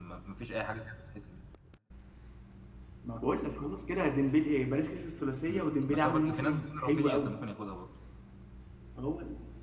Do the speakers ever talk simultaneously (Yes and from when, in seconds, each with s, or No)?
Yes, from 5.5 s